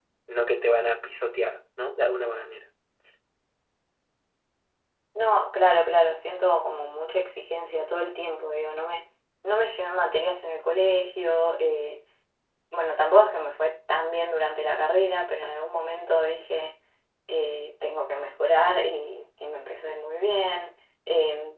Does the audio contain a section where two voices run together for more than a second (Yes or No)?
No